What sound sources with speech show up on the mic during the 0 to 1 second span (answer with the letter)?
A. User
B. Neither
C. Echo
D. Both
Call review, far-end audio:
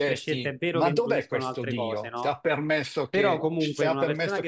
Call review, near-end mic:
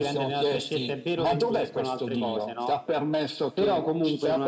C